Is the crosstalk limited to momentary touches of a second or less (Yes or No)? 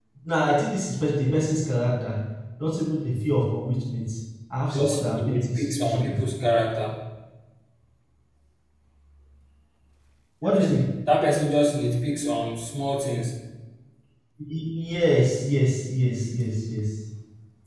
No